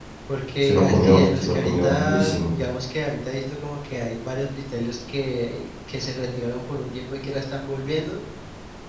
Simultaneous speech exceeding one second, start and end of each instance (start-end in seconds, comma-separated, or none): 0.6-2.5